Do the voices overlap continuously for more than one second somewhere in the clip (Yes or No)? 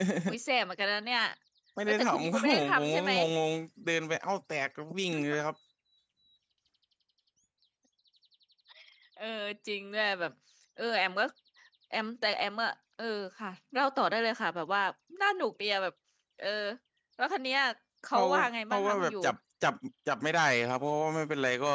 Yes